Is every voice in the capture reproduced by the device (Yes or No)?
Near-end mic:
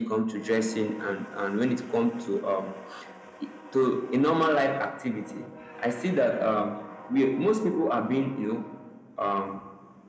Yes